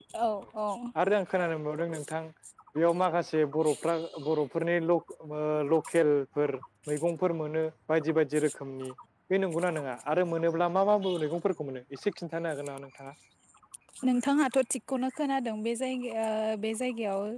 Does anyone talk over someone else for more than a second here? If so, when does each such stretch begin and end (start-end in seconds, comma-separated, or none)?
none